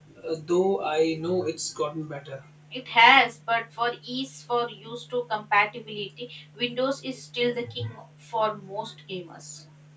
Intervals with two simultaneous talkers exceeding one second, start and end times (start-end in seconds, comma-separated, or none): none